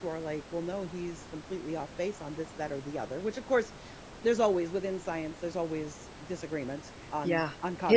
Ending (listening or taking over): taking over